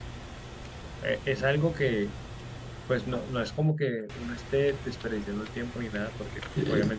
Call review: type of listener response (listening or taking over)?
listening